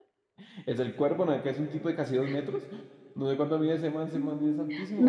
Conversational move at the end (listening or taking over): taking over